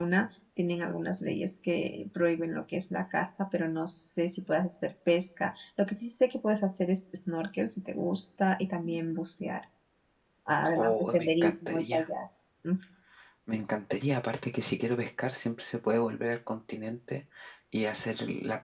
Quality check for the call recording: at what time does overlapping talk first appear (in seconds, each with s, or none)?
10.7 s